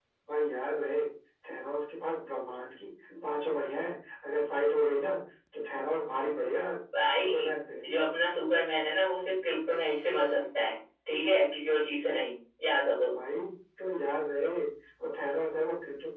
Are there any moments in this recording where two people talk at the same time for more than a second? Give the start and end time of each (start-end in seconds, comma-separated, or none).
none